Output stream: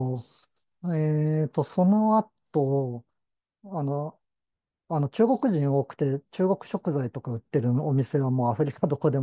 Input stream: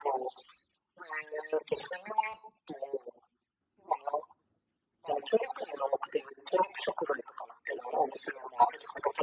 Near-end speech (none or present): none